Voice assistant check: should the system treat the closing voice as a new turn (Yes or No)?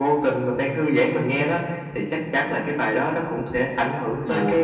Yes